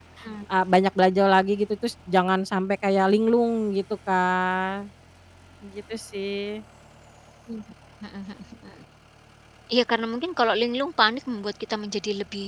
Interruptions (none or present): none